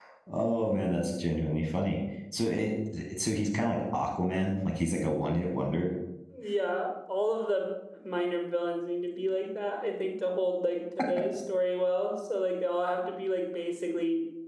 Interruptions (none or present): none